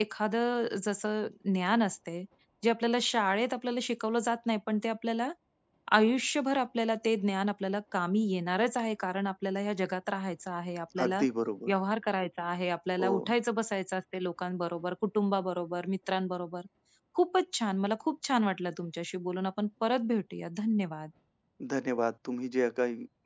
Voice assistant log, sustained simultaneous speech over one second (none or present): none